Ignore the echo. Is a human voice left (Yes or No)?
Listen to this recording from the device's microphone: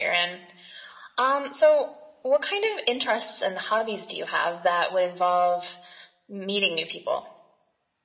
No